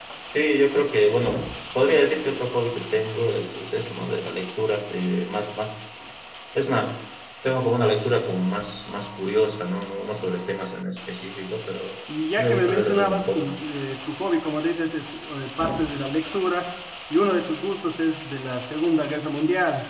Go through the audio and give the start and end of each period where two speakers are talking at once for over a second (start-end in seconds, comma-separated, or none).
12.4-13.6